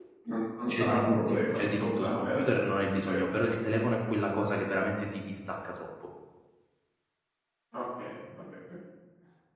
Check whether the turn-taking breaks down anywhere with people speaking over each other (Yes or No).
Yes